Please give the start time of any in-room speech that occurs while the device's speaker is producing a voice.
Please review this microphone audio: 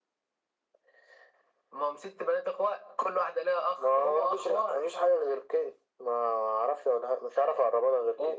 none

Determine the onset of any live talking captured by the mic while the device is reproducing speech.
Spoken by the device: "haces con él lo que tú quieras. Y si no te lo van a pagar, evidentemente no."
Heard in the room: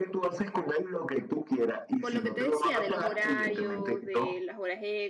2.0 s

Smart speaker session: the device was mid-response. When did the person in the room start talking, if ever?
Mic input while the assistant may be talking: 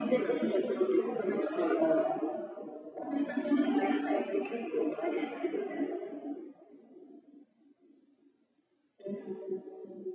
none

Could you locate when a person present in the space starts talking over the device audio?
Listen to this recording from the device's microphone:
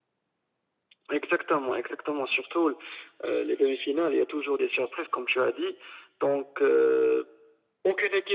none

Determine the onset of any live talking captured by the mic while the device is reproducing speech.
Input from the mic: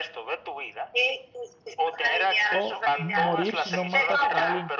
2.5 s

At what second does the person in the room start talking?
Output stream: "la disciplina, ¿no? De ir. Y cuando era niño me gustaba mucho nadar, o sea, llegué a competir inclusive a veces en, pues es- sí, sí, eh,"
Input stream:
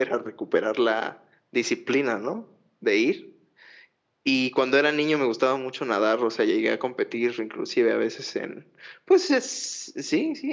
none

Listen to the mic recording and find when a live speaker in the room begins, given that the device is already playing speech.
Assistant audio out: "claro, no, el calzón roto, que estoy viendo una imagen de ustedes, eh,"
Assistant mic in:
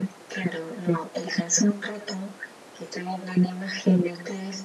none

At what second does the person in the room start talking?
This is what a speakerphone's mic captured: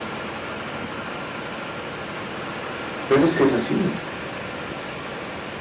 3.1 s

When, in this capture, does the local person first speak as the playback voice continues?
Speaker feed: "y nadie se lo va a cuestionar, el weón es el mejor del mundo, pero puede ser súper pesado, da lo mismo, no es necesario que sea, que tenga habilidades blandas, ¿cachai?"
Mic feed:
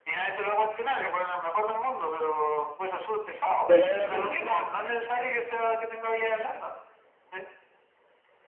3.6 s

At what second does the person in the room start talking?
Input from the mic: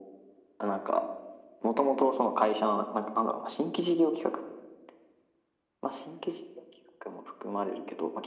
none

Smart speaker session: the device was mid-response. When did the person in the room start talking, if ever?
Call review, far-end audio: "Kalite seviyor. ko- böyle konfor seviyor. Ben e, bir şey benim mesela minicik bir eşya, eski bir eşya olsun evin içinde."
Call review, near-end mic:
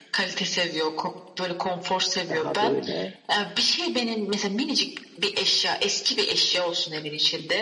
2.3 s

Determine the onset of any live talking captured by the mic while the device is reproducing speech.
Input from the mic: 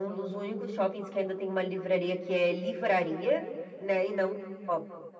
none

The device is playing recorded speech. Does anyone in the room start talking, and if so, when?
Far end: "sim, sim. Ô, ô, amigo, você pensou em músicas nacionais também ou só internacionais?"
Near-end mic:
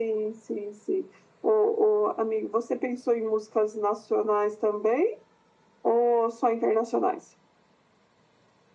none

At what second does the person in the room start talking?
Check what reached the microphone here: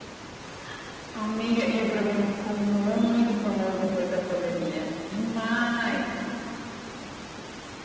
none

